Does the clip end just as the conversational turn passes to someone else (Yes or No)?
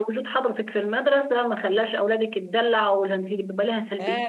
Yes